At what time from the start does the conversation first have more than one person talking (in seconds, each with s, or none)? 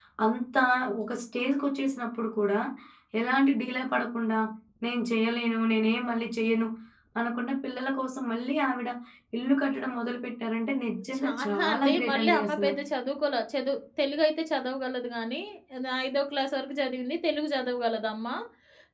11.1 s